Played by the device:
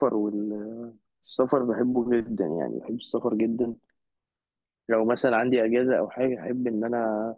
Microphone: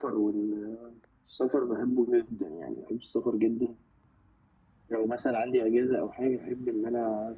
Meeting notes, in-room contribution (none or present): none